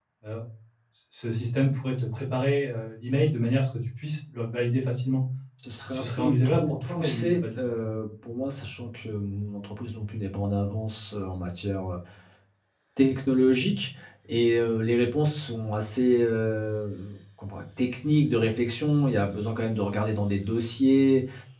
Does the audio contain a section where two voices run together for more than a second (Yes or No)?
Yes